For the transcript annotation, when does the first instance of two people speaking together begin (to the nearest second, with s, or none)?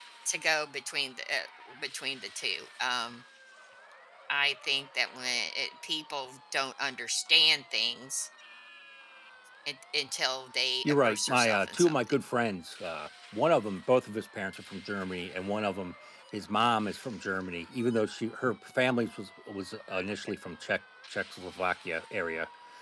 11 s